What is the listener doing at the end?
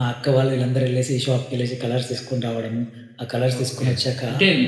taking over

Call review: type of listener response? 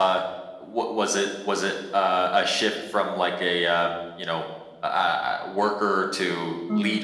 taking over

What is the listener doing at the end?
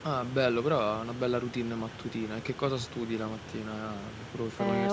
taking over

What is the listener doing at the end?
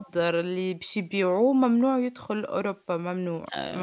taking over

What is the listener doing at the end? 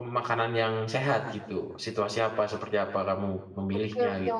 taking over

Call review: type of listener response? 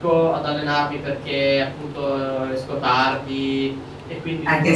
taking over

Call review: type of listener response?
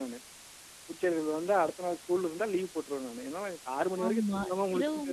taking over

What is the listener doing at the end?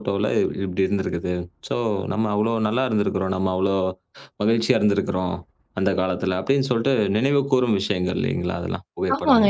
taking over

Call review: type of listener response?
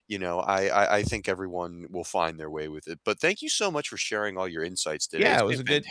taking over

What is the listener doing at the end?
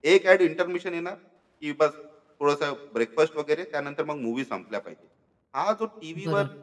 listening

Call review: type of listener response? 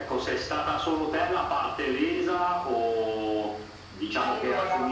listening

